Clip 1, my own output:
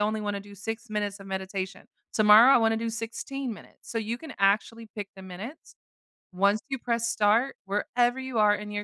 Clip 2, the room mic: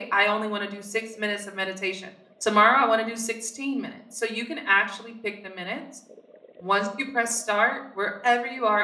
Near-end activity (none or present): none